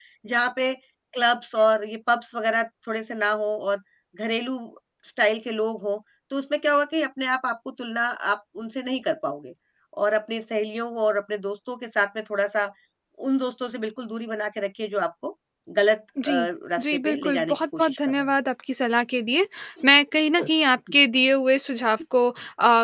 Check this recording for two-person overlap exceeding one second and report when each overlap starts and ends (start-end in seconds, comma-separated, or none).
16.8-18.2